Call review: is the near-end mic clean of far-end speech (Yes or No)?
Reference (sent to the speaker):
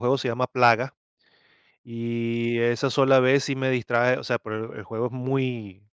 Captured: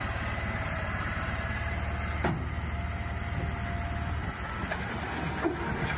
Yes